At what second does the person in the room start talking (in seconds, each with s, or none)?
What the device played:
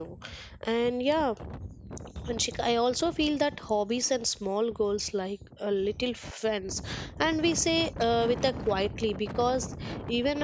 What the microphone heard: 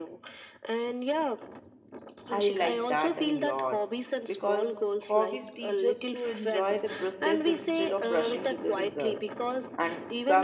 2.3 s